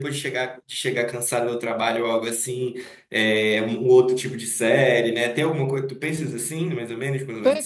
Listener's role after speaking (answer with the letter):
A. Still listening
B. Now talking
B